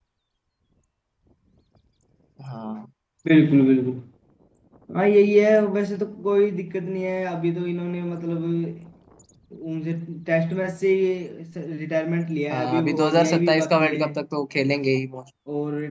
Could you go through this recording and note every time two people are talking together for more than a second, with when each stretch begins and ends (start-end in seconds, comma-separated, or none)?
12.5-14.0